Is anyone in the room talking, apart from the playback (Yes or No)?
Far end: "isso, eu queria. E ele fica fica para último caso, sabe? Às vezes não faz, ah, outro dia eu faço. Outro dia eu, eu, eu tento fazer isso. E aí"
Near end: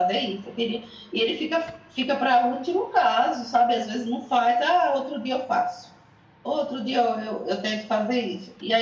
No